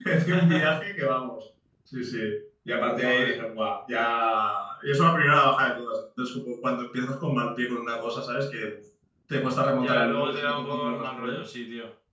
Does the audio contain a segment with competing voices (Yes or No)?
Yes